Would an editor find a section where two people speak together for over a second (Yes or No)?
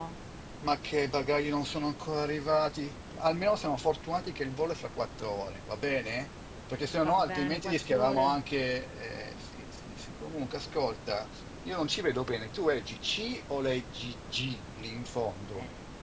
Yes